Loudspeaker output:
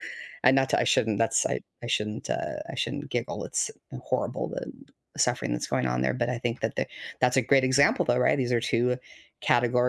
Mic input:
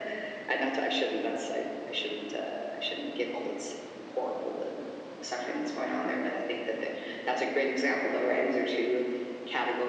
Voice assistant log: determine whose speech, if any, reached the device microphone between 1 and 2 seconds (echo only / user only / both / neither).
echo only